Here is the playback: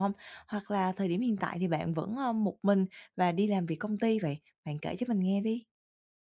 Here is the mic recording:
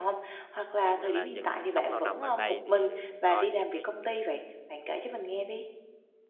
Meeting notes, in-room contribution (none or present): present